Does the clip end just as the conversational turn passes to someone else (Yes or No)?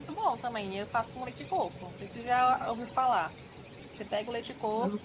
No